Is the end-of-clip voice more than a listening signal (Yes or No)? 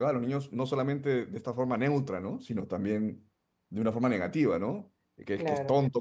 No